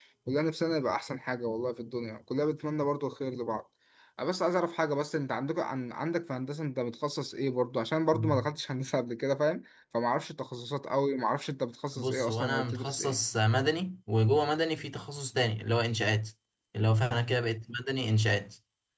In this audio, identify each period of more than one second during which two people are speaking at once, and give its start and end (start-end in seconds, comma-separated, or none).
12.0-13.2